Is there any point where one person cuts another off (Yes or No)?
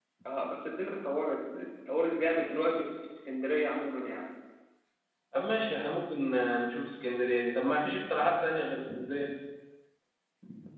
No